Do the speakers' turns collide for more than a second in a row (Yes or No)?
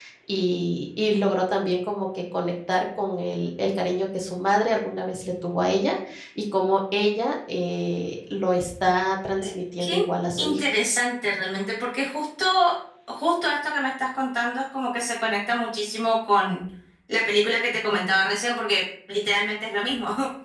No